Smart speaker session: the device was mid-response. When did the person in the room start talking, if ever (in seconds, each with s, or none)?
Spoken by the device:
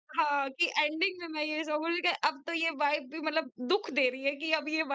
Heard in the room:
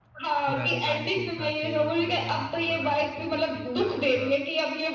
0.4 s